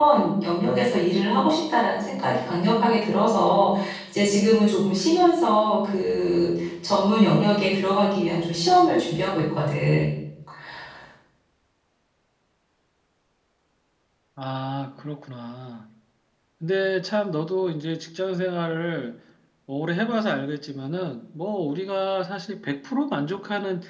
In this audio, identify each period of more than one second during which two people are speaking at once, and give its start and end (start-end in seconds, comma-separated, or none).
none